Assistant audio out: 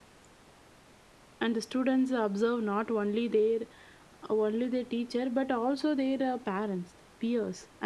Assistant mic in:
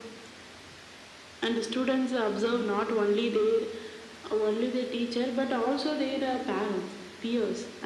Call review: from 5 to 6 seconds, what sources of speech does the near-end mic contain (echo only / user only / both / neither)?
echo only